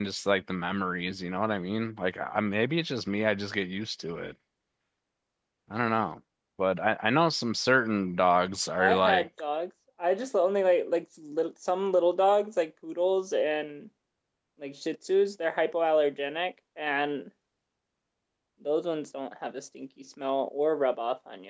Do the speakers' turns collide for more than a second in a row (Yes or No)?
No